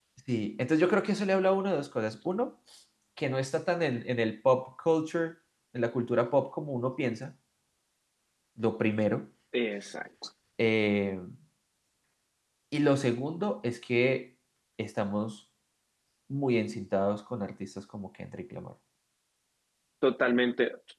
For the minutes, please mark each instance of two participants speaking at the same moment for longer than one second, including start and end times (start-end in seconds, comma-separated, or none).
none